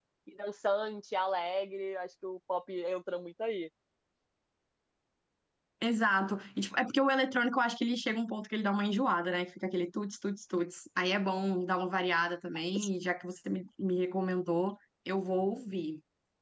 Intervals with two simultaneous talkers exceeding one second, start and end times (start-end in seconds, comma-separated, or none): none